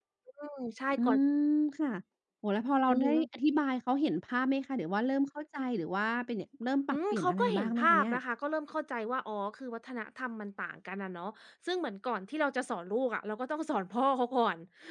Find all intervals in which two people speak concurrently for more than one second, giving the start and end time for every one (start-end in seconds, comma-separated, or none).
6.9-8.1